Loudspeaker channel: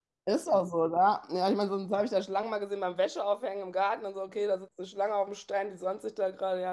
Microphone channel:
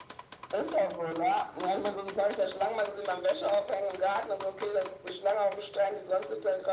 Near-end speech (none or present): none